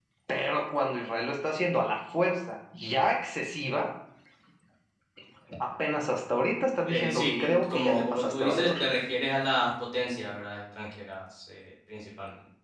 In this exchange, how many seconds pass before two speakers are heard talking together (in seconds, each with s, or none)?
6.9 s